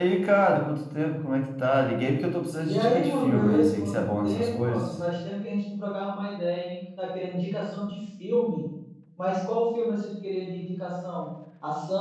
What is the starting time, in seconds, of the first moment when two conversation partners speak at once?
3 s

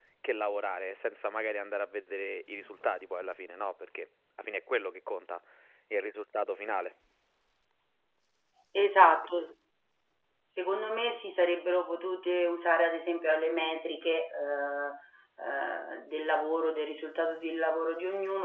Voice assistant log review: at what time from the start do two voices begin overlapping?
none

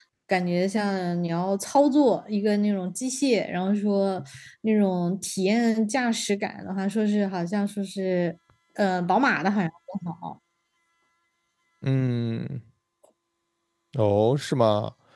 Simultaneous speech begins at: none

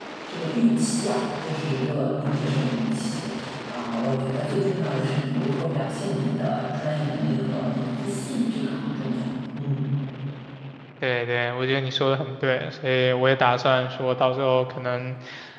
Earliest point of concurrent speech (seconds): none

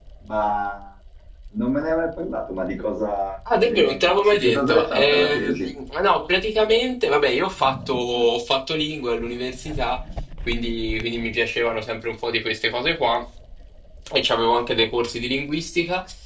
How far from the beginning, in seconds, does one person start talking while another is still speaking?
3 s

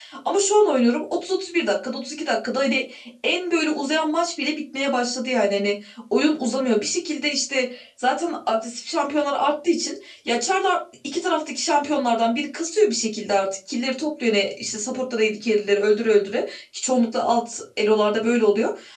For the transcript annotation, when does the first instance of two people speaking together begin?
none

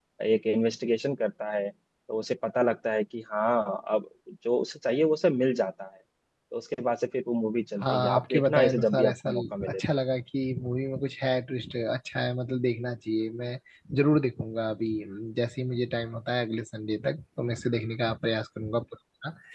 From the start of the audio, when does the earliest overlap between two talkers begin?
8 s

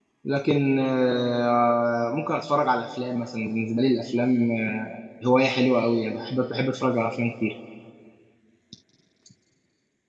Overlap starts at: none

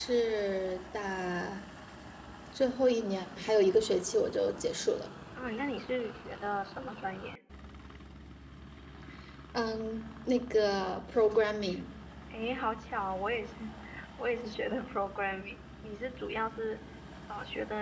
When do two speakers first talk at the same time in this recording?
none

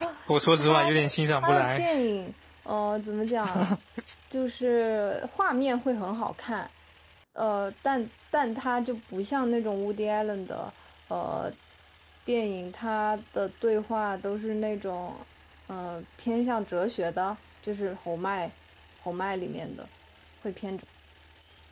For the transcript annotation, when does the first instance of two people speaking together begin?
1 s

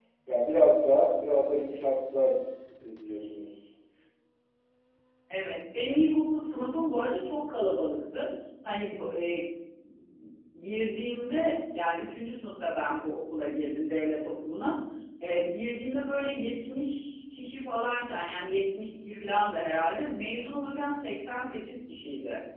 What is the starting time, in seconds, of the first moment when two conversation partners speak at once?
none

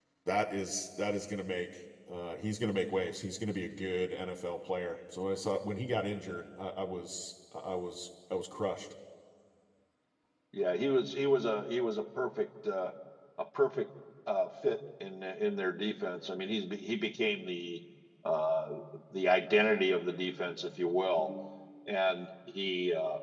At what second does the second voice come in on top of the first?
none

